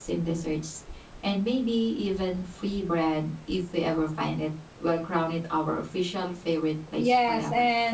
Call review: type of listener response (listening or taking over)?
taking over